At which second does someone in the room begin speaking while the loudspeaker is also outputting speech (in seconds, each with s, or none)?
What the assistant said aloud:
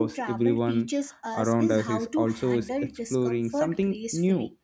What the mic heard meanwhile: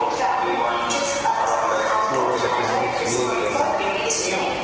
1.9 s